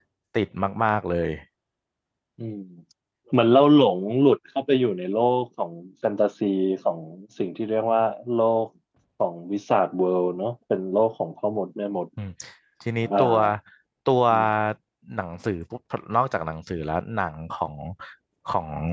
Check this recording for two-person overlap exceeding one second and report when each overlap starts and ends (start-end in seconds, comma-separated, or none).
none